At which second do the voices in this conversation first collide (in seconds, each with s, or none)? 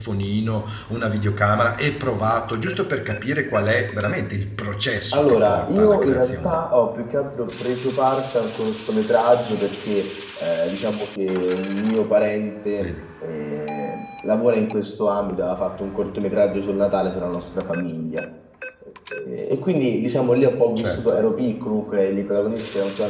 5.1 s